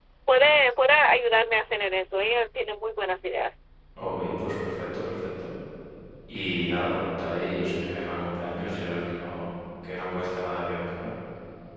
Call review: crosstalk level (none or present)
none